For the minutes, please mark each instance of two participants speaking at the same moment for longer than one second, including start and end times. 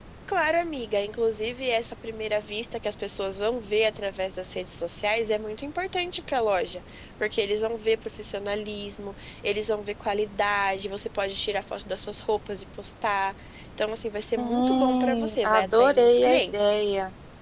14.4-16.6

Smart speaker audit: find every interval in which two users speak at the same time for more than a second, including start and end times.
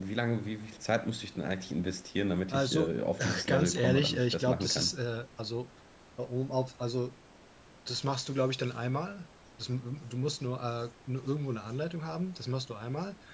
2.5-4.9

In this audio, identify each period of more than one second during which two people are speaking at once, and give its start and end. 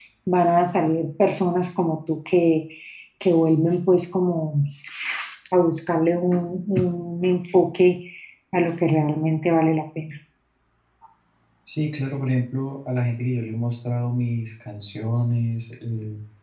none

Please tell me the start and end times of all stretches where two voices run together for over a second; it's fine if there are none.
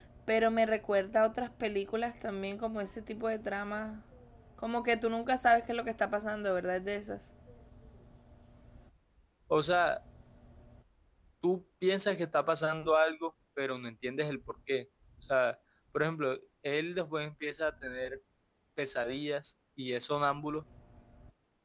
none

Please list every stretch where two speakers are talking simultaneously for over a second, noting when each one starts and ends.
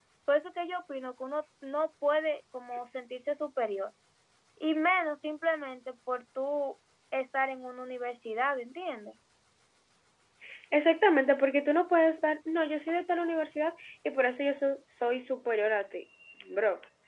none

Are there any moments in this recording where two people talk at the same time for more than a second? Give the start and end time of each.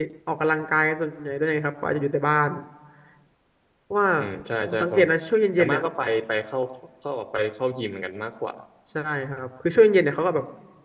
none

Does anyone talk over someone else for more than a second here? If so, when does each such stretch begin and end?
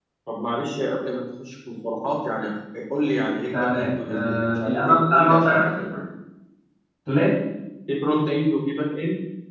3.5-5.8

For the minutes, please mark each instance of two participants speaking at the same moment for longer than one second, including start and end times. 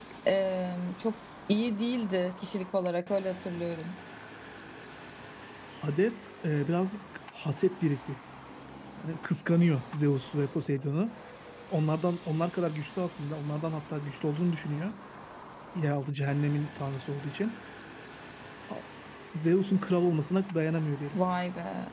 none

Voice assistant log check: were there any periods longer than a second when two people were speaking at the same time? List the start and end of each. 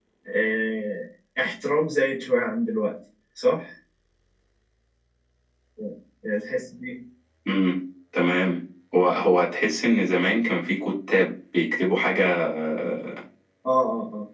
none

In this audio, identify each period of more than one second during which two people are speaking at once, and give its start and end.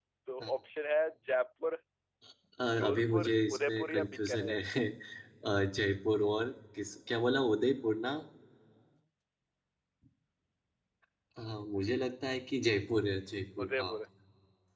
2.8-4.6

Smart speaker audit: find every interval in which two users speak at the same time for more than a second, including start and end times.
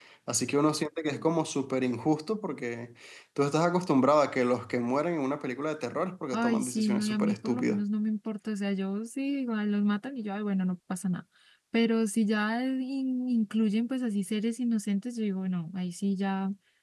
6.3-7.8

